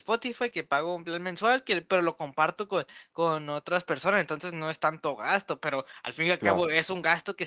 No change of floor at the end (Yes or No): Yes